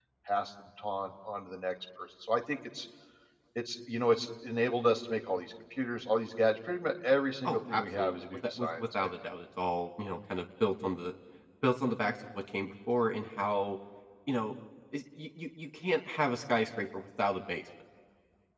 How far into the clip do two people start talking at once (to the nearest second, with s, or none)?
7 s